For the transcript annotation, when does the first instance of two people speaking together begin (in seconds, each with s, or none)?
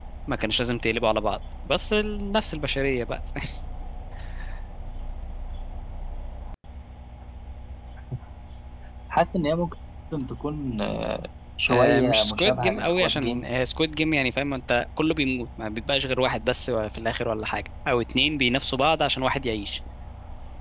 11.7 s